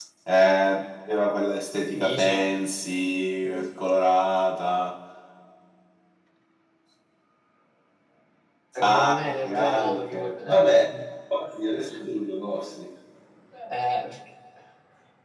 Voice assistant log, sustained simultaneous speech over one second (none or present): present